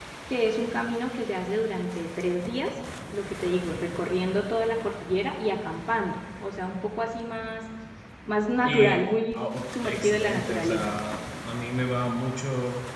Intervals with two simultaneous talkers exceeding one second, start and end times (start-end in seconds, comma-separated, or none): 9.3-10.9